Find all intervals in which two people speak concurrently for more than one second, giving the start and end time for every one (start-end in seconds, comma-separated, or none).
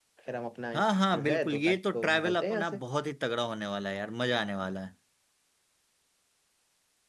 1.1-2.8